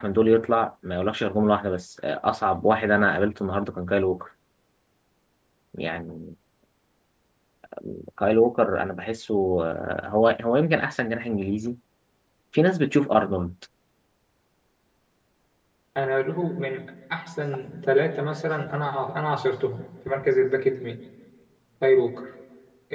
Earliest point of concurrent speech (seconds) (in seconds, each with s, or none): none